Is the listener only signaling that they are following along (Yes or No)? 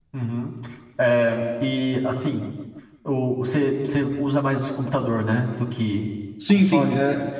No